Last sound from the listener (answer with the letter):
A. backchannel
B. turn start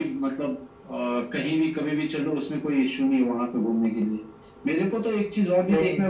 A